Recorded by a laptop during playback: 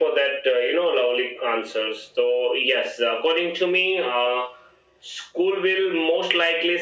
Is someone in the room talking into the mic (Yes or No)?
No